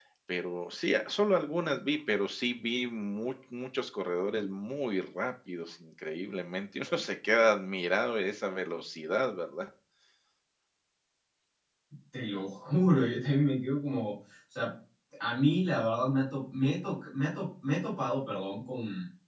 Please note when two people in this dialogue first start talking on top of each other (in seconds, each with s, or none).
none